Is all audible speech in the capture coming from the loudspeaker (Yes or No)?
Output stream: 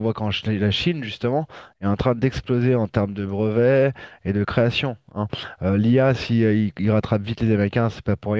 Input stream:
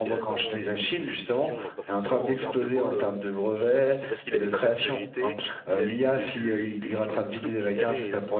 No